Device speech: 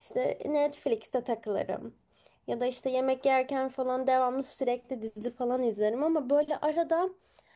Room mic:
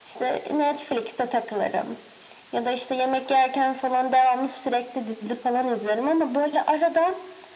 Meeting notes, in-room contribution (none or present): none